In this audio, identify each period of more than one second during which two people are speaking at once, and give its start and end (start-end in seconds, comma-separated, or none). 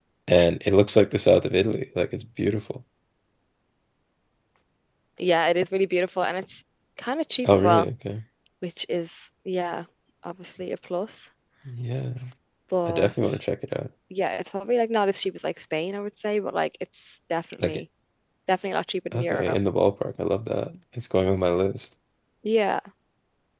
none